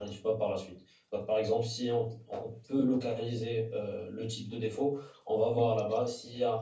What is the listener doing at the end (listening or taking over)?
listening